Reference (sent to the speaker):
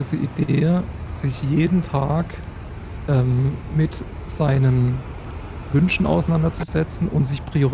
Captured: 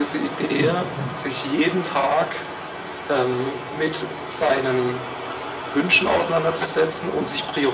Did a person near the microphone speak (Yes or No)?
Yes